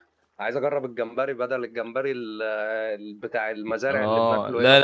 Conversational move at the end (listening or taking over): taking over